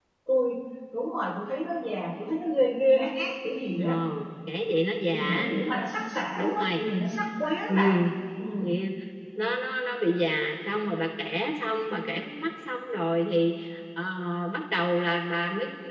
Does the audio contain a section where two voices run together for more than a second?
No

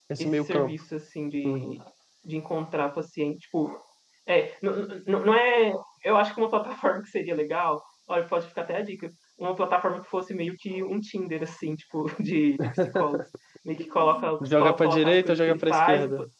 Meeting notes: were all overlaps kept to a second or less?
No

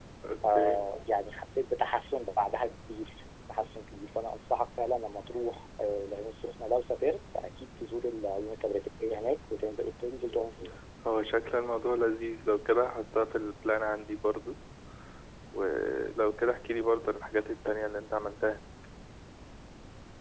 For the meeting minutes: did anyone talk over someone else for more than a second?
No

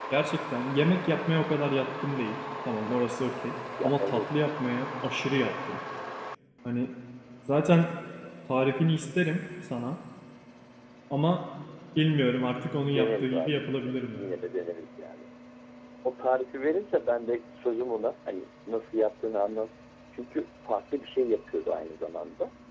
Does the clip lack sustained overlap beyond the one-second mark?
No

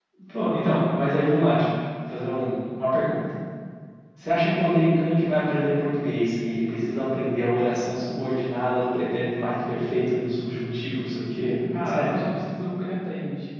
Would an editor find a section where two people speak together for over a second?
No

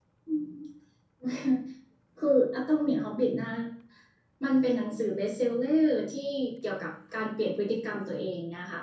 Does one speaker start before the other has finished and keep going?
No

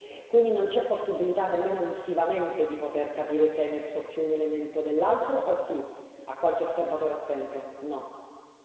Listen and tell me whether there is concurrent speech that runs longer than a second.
No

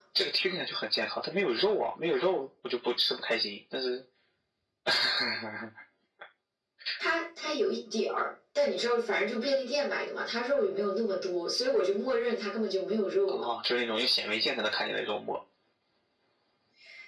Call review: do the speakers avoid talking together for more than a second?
Yes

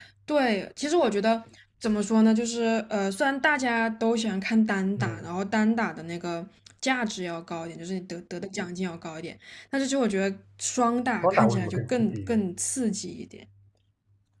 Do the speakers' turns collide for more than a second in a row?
Yes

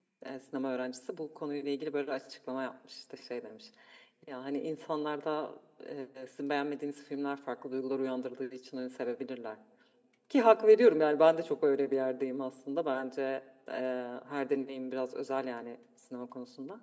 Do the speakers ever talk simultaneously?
No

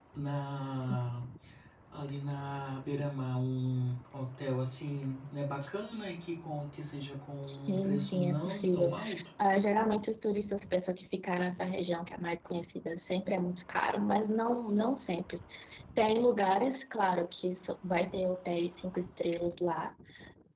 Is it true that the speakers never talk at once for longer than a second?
No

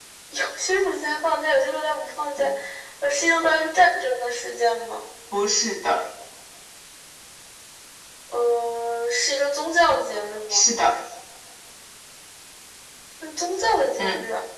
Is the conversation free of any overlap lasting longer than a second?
Yes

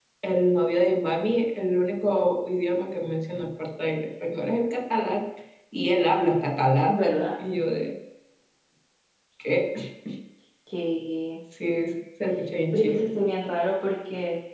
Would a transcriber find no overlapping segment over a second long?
Yes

